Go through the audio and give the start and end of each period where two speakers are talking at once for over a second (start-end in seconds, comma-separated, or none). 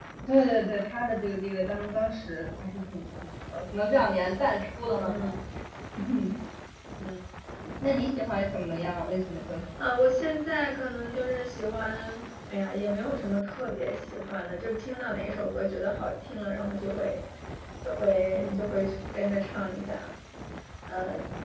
none